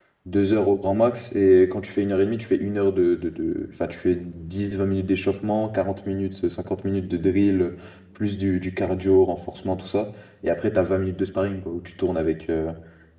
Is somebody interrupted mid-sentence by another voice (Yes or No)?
No